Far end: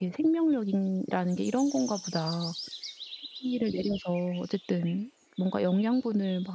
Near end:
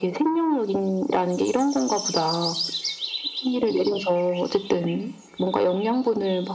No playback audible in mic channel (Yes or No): No